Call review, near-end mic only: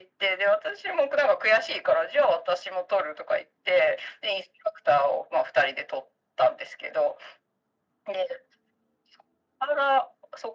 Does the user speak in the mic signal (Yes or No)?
No